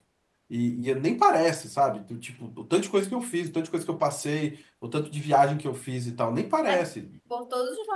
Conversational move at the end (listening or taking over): taking over